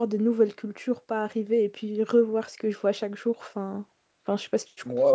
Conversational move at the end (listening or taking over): taking over